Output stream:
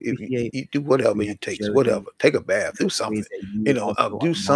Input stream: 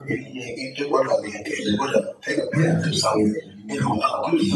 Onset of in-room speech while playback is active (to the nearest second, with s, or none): 3 s